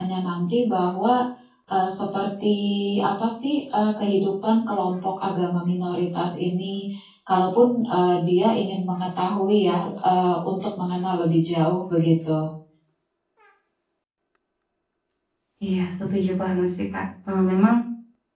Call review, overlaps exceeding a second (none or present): none